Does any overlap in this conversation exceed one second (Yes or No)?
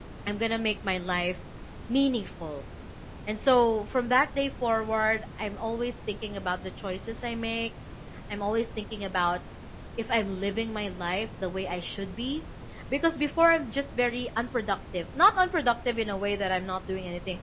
No